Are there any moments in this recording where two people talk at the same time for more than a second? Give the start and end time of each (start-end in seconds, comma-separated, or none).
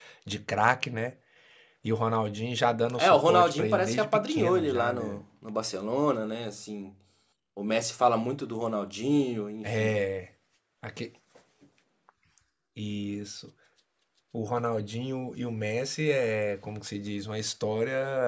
3.0-5.2